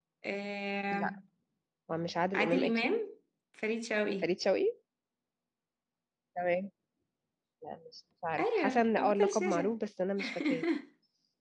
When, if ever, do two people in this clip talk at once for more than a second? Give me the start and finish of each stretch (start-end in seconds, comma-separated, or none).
8.4-9.8